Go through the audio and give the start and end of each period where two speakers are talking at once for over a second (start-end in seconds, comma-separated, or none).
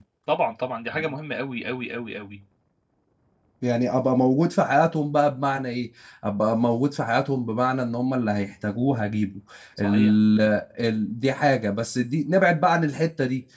none